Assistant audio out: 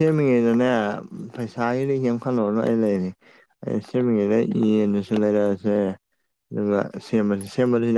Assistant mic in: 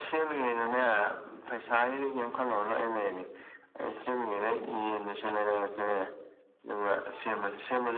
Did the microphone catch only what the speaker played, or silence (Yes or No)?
Yes